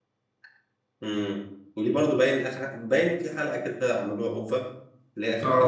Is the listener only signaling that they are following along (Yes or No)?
No